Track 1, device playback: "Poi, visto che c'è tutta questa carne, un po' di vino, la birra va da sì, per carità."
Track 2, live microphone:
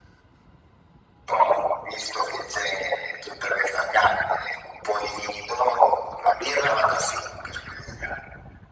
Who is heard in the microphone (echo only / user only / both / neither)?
echo only